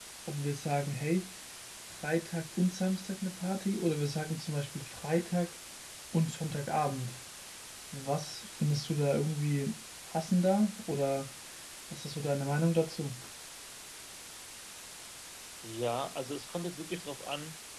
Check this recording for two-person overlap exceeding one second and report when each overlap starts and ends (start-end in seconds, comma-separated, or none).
none